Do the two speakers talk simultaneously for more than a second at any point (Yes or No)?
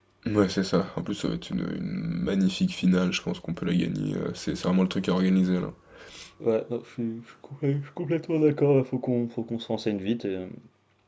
No